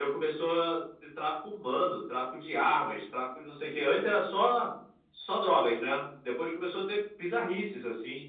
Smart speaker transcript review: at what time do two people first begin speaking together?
none

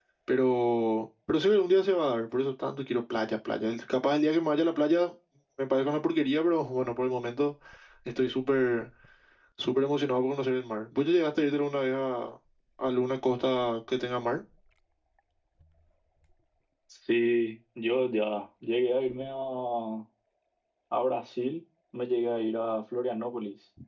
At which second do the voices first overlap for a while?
none

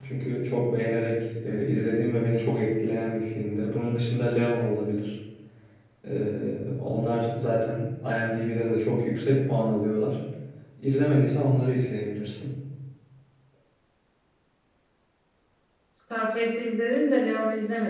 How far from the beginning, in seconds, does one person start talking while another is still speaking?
none

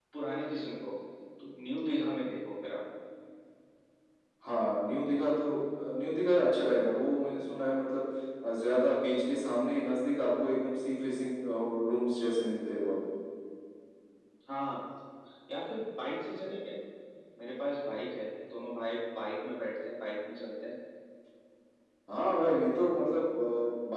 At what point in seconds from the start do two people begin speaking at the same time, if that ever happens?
none

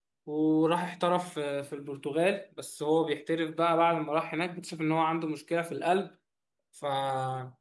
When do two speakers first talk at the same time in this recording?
none

